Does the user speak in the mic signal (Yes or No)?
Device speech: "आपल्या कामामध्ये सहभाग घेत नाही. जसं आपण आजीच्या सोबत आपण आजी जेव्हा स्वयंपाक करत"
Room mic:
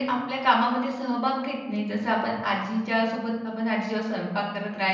No